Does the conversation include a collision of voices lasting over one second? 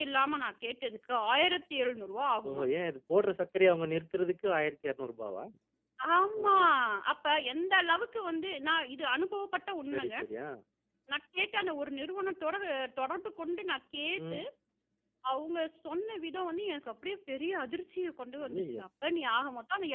No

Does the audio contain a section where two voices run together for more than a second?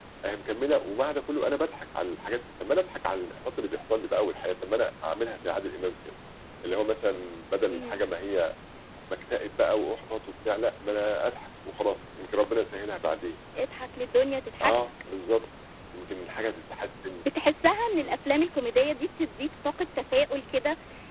No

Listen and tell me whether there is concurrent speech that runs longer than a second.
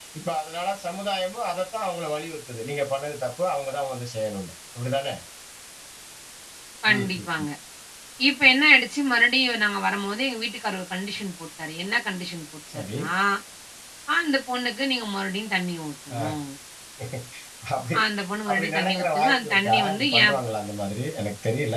Yes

